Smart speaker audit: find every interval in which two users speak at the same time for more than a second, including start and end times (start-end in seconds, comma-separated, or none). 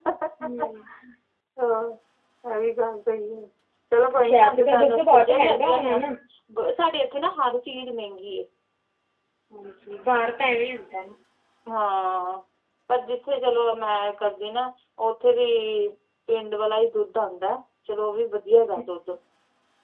4.2-6.0